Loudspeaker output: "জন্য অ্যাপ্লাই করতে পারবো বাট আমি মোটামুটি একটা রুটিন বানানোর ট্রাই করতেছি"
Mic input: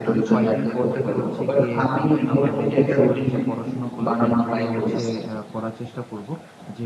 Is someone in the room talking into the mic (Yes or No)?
Yes